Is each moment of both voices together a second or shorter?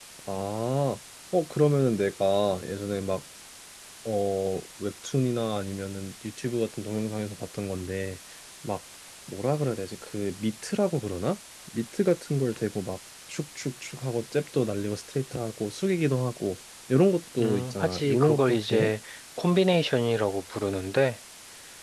No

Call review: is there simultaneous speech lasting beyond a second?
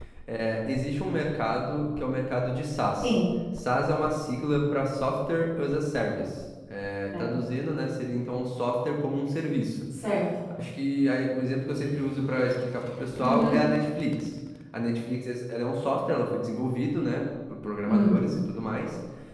No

